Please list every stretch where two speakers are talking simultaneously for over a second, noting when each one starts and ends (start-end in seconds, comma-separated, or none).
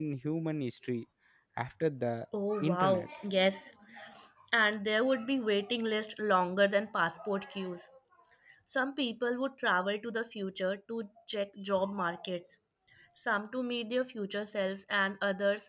none